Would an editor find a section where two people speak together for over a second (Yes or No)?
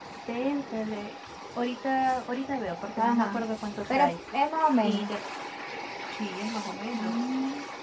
No